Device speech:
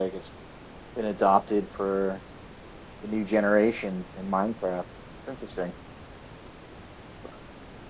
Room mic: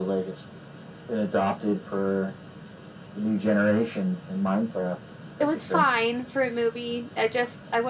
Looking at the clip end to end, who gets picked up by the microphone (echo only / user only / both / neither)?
both